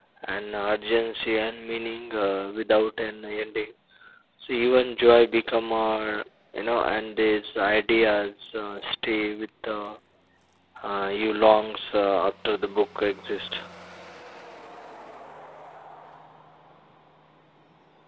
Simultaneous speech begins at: none

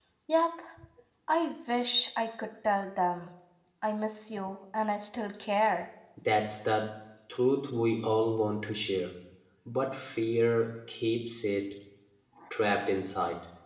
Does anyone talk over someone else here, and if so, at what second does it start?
none

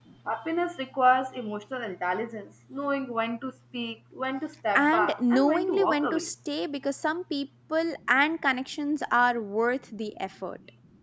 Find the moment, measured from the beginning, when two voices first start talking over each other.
4.8 s

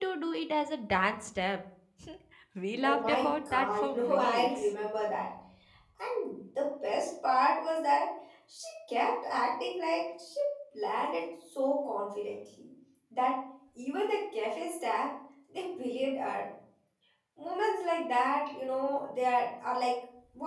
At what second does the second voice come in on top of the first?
2.8 s

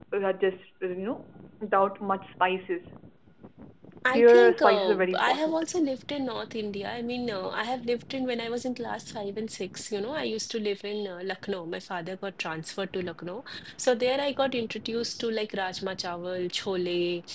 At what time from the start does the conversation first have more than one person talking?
4.1 s

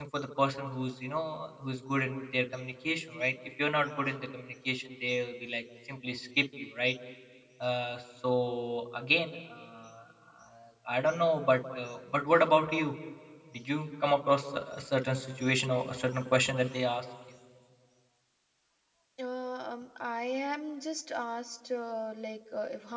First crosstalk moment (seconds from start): none

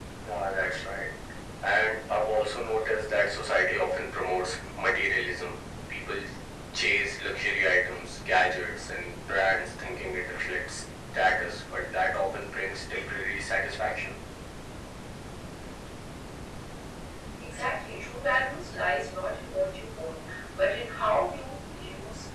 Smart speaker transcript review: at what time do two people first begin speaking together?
none

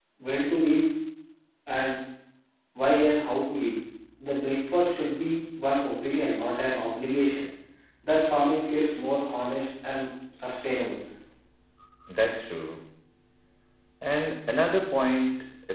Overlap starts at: none

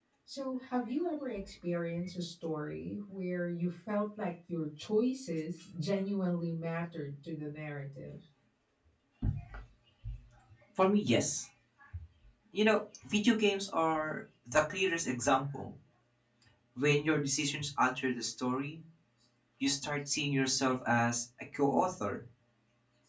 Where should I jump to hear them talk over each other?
none

